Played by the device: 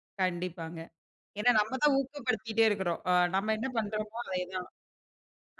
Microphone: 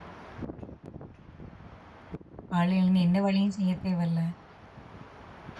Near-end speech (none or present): present